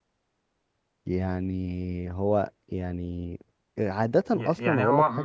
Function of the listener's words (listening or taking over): taking over